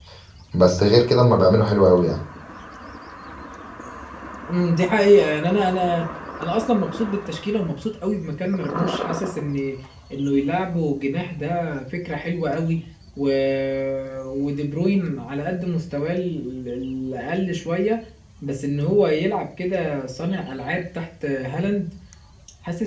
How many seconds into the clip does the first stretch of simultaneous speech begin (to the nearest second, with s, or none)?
none